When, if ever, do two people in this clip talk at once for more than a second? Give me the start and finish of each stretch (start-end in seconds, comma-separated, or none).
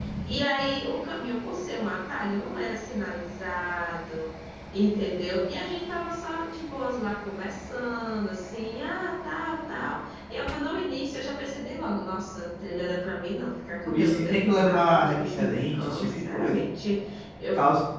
13.8-16.5